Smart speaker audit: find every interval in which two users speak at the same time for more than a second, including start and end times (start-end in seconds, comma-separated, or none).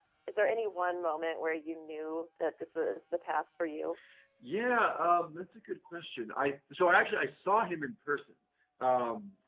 none